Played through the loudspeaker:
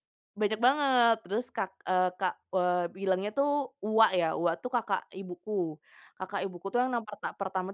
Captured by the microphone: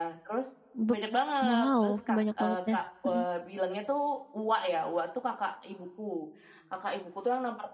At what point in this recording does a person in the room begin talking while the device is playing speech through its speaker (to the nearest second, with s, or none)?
1 s